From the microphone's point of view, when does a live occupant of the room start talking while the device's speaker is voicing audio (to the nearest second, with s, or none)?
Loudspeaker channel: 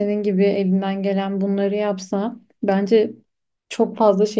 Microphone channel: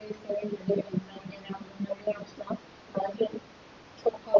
none